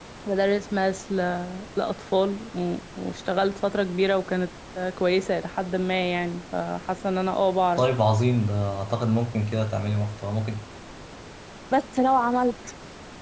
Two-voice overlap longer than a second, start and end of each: none

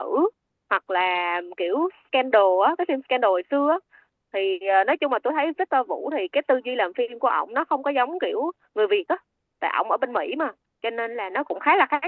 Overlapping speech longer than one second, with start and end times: none

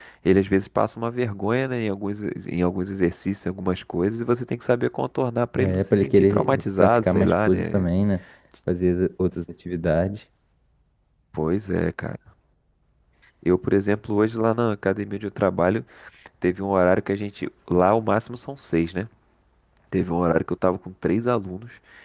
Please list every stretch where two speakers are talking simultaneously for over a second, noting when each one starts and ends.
5.5-7.8

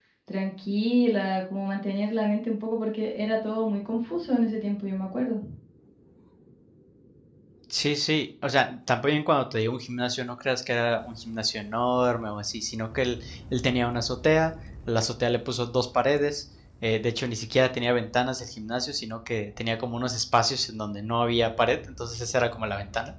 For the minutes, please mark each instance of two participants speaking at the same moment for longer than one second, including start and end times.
none

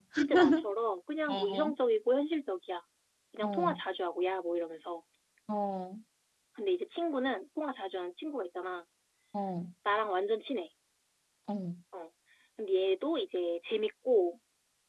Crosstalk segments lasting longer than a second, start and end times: none

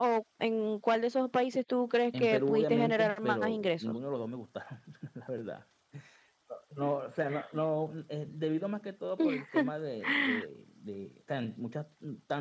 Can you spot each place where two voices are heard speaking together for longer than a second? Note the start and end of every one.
2.1-3.9

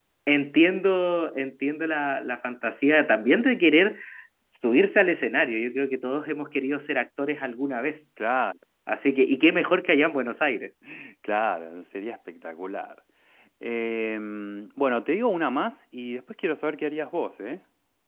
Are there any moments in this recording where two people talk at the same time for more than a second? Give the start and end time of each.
none

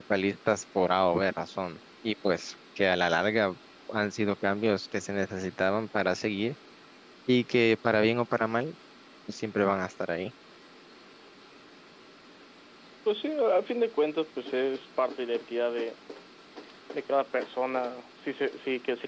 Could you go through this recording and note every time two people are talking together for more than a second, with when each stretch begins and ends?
none

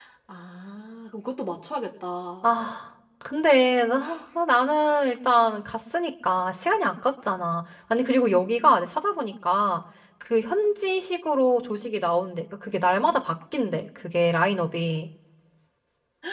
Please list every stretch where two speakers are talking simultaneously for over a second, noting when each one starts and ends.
none

